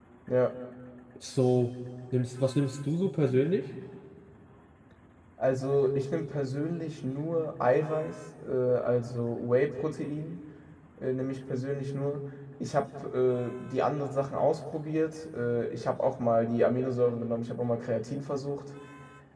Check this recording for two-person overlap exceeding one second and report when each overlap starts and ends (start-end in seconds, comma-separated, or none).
none